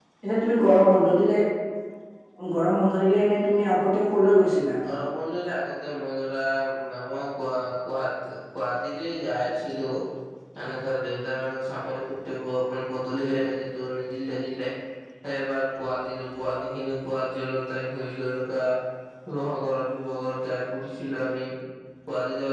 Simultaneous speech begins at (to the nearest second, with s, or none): none